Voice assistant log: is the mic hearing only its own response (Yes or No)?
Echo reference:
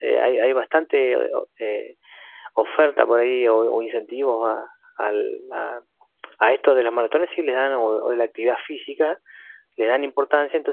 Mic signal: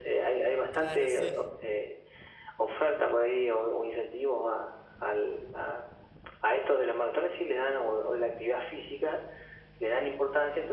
No